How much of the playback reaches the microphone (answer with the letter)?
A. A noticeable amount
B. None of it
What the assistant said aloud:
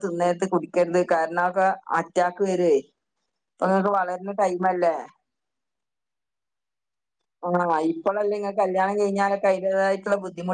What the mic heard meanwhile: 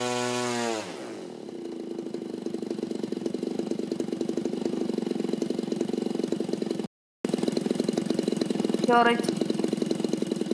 B